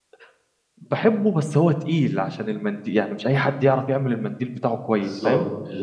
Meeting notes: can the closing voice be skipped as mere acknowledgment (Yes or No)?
No